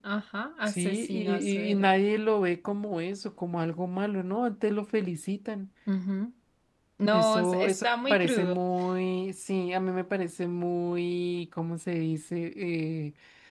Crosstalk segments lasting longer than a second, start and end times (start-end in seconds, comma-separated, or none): 0.7-1.9, 7.1-8.6